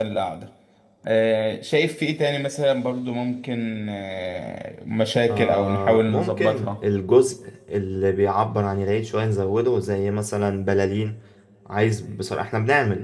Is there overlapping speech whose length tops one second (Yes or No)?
Yes